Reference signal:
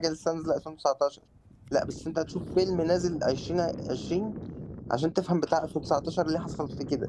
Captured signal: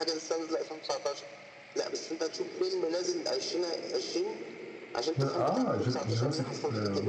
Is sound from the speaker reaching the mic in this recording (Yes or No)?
Yes